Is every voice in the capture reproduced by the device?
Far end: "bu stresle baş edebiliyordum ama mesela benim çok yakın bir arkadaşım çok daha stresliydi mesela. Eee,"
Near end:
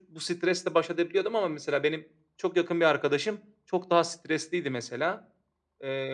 Yes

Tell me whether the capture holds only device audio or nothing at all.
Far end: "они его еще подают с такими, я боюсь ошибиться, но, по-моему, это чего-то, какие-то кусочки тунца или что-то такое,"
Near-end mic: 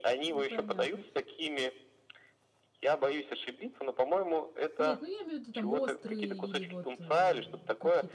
No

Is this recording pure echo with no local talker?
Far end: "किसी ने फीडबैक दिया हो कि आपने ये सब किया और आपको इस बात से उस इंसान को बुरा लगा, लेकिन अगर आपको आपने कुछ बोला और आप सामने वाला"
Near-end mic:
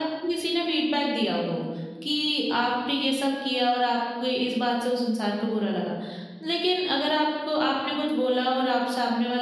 Yes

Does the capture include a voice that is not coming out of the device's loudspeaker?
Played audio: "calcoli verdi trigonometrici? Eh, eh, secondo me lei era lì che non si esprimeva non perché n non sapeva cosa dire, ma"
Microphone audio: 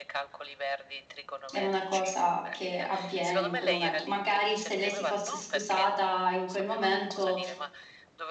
Yes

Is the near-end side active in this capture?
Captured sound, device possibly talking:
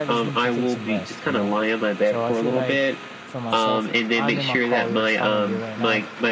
Yes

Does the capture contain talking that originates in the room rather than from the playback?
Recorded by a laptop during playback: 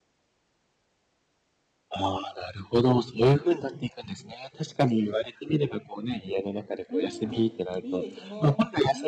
Yes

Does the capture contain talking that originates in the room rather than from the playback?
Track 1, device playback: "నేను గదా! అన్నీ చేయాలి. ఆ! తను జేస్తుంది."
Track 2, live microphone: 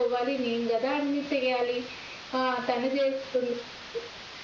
No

